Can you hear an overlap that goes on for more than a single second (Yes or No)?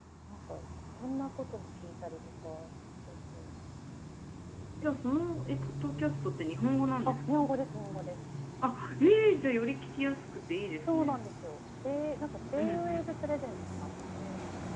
No